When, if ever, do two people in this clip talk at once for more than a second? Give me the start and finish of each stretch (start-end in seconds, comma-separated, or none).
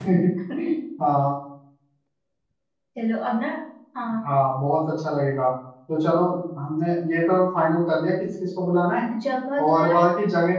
none